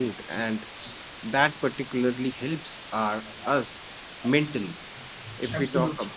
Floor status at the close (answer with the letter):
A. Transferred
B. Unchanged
B